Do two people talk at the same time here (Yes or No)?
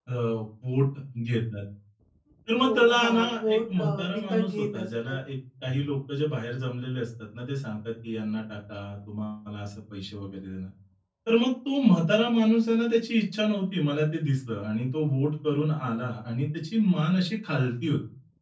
Yes